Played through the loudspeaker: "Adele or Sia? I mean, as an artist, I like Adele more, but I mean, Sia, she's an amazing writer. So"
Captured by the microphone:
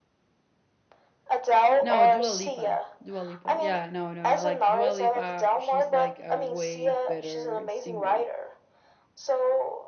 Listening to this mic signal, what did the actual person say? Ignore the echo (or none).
no, Dua Lipa. Dua Lipa. Yeah, no, no, no. Like Dua Lipa, she's like a way better singer.